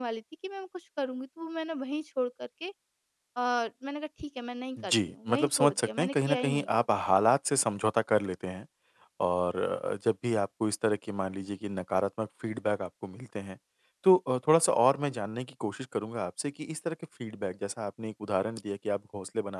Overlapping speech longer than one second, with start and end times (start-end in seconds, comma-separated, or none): 4.8-6.8